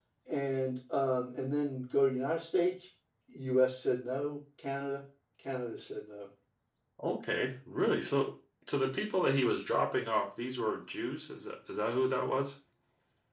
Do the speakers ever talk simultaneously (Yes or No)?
No